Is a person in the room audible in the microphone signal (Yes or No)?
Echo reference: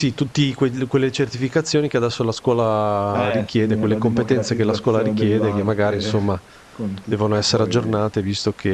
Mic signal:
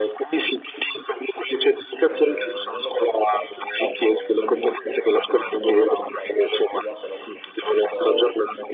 Yes